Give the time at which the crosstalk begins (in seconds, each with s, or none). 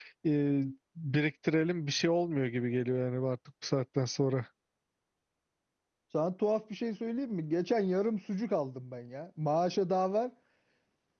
none